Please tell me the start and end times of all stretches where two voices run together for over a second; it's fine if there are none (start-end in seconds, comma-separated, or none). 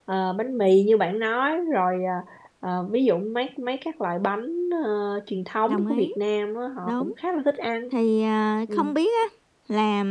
none